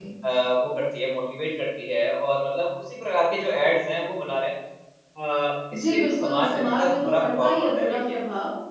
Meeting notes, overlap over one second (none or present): present